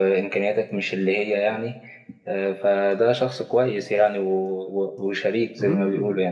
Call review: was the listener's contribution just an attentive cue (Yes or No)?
No